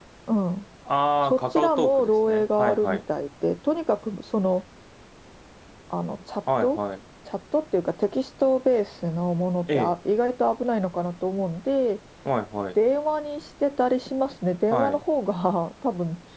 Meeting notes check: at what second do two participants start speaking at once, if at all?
1.2 s

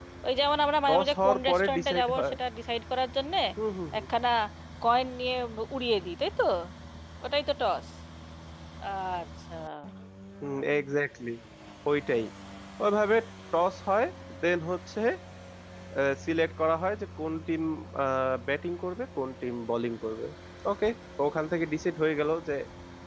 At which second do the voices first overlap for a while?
0.9 s

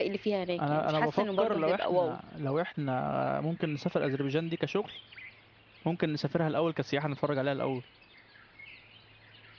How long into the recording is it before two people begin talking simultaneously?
0.6 s

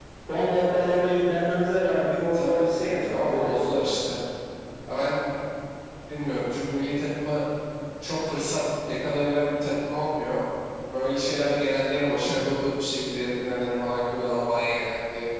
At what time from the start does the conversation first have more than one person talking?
2.3 s

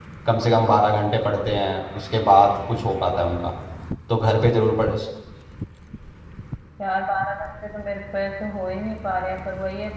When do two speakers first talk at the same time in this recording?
none

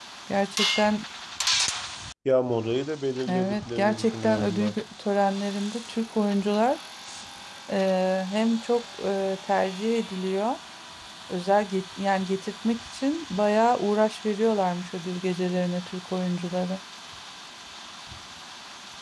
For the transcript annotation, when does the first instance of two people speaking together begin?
3.3 s

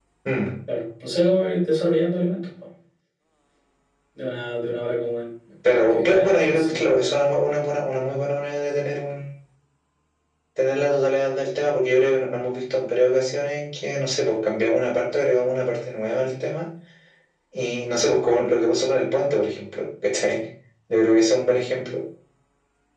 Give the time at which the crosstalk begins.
5.6 s

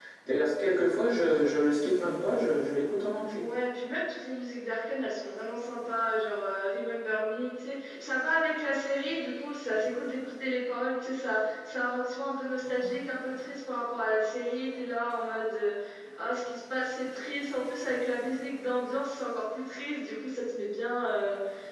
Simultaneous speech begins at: none

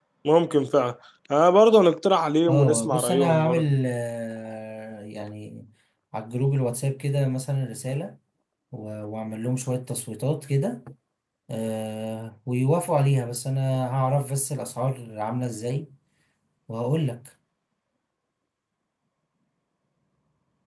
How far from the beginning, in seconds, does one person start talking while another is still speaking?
2.5 s

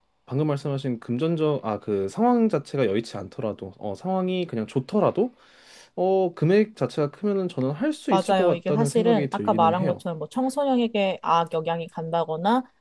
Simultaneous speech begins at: 8.1 s

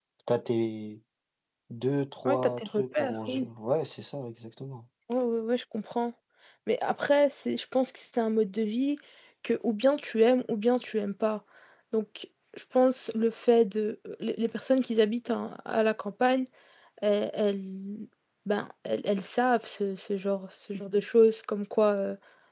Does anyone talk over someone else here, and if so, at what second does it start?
2.2 s

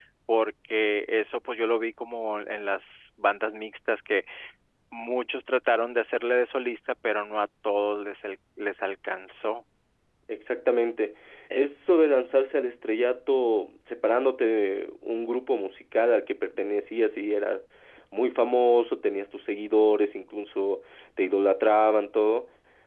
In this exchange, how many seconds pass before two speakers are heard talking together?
none

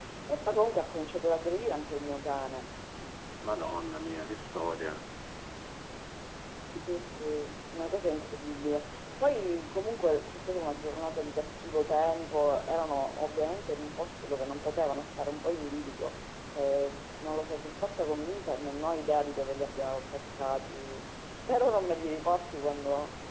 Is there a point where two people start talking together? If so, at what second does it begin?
none

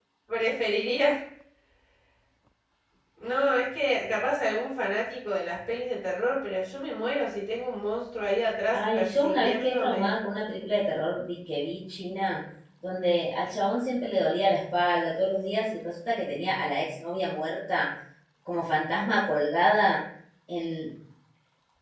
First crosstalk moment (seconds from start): 8.7 s

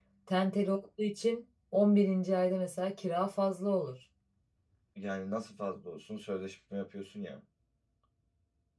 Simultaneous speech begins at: none

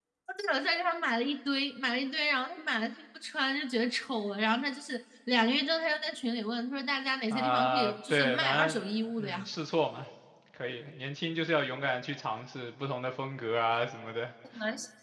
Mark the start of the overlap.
7.3 s

